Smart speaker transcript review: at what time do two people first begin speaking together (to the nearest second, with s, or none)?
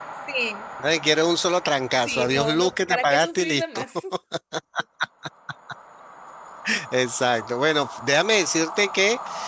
2 s